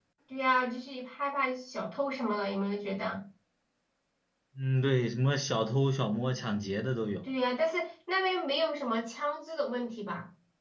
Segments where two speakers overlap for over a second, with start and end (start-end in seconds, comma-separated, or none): none